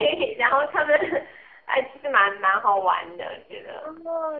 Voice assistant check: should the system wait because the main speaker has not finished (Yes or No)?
No